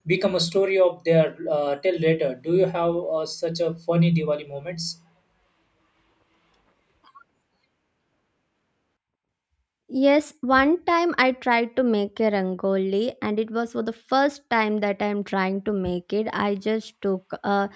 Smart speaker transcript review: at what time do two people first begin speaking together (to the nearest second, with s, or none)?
none